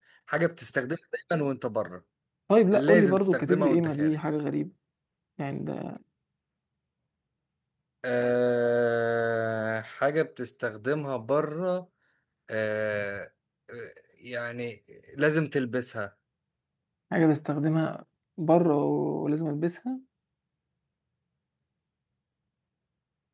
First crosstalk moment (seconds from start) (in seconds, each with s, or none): 2.7 s